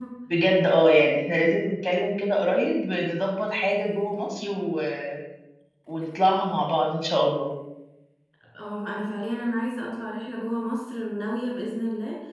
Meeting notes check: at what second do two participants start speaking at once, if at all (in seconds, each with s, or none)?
none